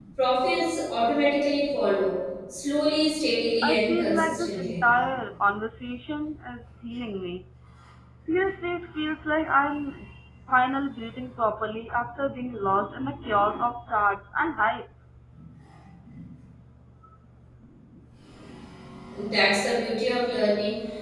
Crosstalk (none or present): present